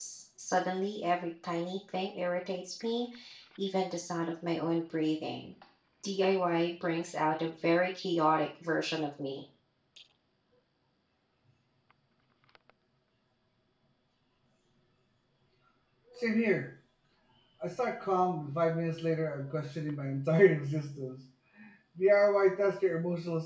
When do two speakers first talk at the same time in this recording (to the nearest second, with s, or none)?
none